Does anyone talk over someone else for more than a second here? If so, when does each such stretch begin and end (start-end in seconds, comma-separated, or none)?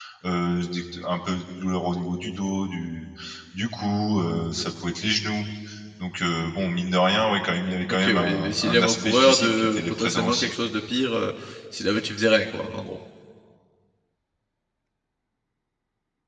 7.9-10.5